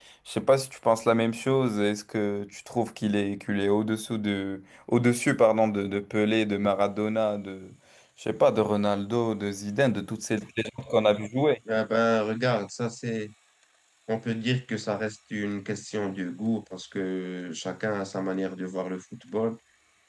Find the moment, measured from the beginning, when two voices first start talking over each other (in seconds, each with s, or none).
none